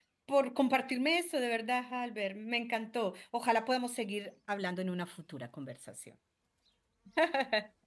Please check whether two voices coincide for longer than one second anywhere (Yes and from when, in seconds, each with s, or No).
No